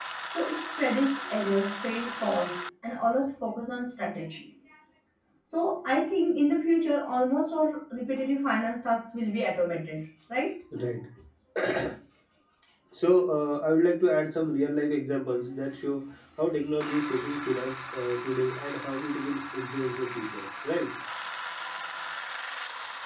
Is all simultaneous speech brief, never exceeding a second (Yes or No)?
Yes